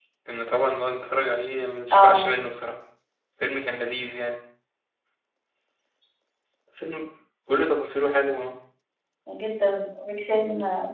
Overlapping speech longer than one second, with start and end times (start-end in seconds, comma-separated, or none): none